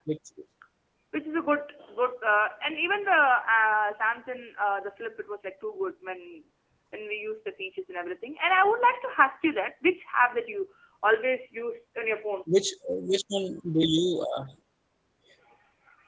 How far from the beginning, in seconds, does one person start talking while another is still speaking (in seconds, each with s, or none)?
none